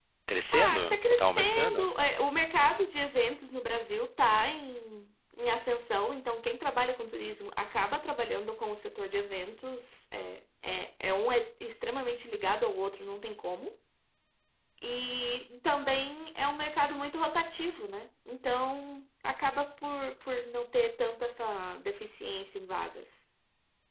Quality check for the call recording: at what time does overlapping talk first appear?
0.5 s

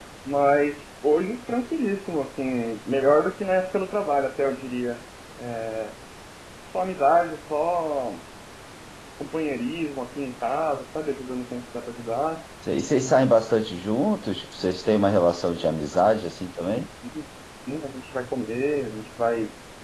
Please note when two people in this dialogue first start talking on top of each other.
none

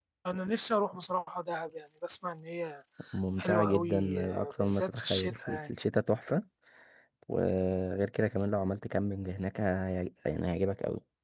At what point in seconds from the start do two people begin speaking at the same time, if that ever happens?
3.4 s

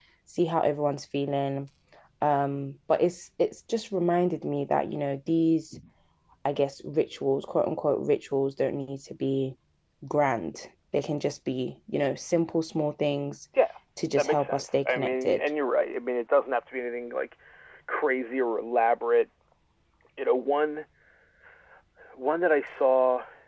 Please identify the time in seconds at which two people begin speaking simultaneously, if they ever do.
14.2 s

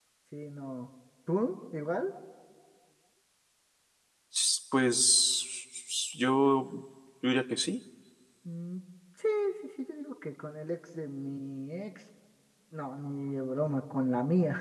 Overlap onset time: none

